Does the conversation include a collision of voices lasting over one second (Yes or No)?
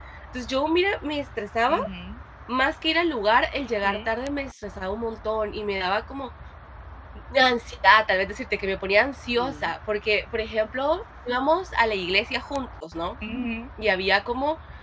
No